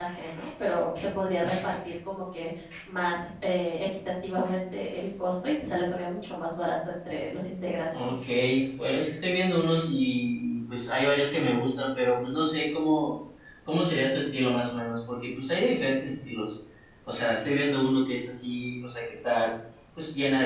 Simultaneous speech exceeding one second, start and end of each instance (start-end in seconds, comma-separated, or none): none